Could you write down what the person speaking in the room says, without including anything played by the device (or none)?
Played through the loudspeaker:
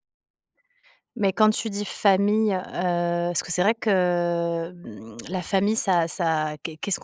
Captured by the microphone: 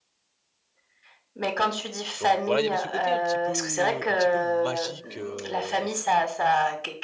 Donc voilà, il y avait ce côté un petit peu un petit peu magique, heu